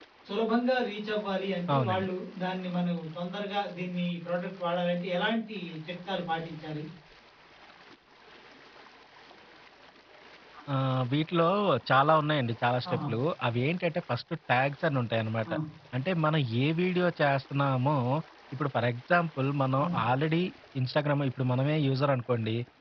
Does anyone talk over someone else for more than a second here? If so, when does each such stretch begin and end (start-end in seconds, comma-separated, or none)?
none